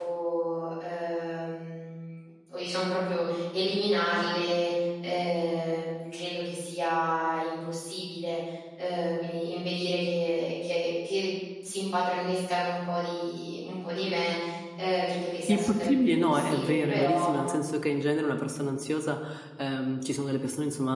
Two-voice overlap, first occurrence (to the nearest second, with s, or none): 15 s